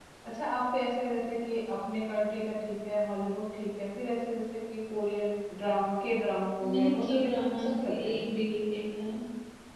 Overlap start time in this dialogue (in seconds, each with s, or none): 6.6 s